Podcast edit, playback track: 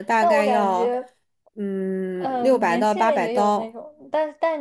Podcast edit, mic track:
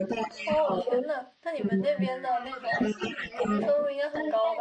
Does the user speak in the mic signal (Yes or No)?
Yes